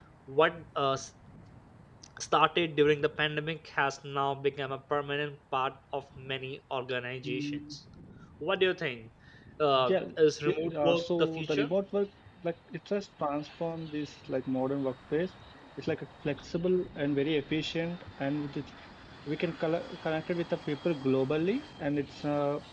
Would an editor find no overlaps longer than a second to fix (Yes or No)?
No